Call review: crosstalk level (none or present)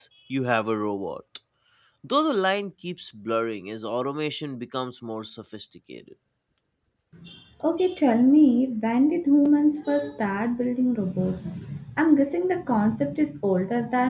none